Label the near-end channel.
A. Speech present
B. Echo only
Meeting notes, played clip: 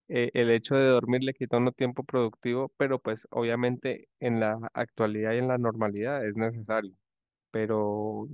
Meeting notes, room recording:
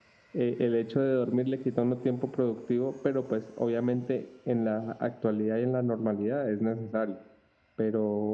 B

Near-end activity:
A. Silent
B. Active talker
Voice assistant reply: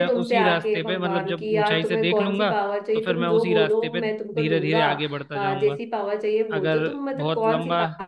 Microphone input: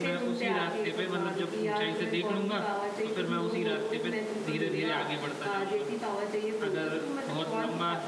A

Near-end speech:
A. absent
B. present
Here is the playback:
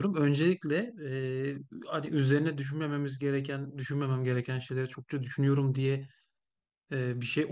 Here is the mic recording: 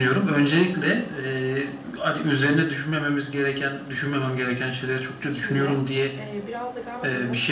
B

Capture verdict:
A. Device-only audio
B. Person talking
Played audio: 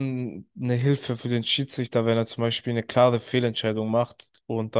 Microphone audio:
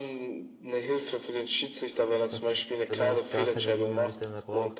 B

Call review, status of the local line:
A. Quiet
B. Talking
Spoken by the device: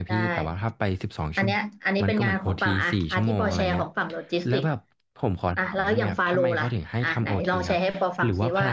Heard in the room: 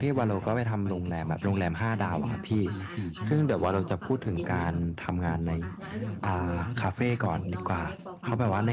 B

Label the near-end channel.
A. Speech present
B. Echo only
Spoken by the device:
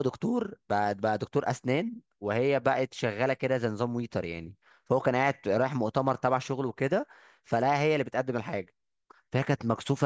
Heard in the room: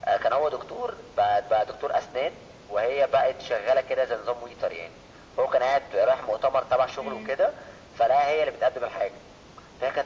A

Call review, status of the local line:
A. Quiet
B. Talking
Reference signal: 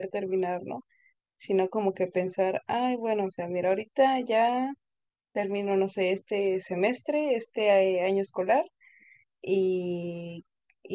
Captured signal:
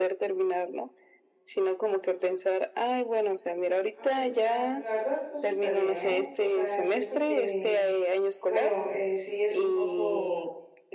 B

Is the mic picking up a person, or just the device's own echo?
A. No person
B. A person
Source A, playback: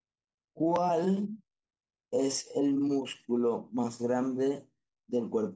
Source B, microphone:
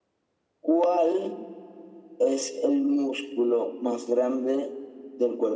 A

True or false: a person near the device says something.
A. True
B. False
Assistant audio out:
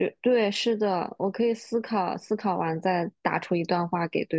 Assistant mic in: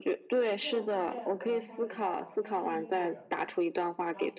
A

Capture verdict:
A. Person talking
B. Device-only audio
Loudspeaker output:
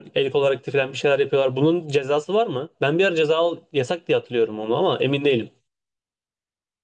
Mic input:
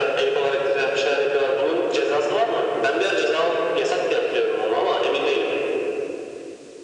B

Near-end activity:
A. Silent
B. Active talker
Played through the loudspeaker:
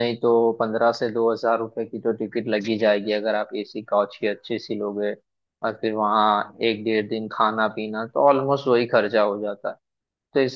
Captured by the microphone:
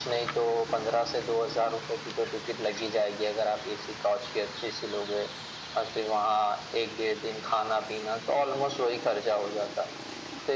A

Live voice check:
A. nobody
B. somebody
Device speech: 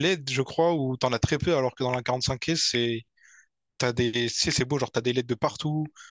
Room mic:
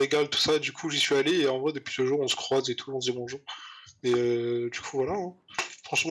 B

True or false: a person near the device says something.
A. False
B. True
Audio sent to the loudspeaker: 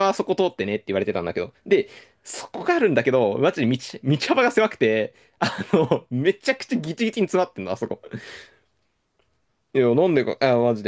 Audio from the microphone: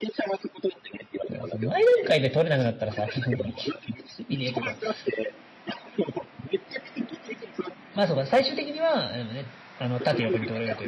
B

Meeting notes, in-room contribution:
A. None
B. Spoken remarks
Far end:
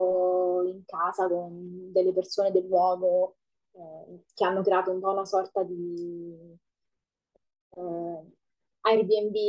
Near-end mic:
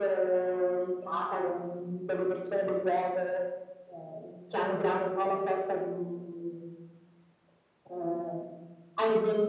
A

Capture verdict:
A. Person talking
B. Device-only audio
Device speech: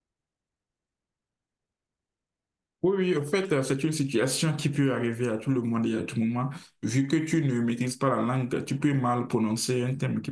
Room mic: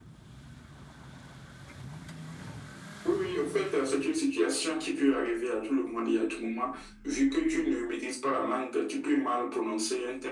B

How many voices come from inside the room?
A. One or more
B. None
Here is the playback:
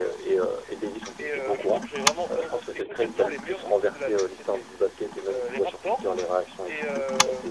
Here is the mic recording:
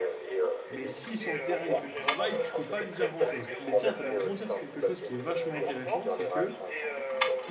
A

